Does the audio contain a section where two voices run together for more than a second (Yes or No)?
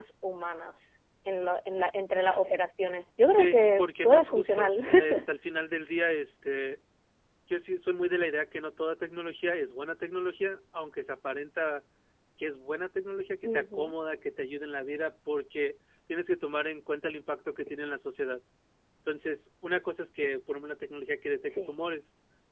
Yes